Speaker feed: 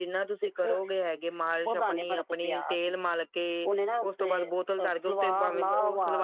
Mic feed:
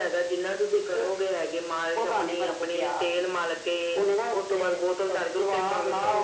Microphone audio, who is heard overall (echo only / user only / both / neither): echo only